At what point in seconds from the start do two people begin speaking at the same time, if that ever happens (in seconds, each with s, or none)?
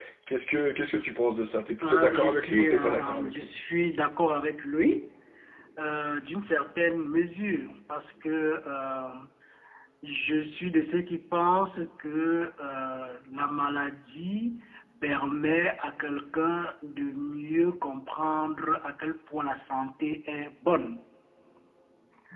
1.8 s